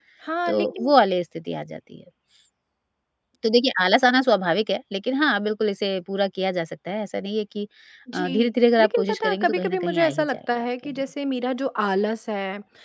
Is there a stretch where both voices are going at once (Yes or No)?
Yes